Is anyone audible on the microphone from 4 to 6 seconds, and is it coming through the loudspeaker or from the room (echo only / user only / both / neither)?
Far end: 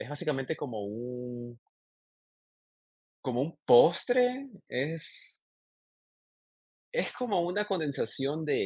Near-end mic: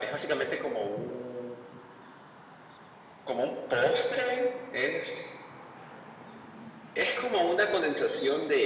echo only